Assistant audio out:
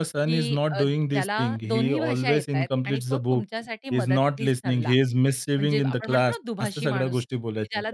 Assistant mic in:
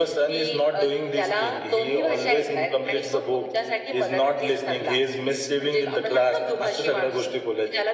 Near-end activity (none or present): none